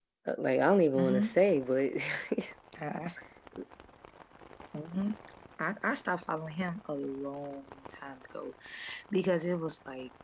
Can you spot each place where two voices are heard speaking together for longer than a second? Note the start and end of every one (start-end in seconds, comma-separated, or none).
none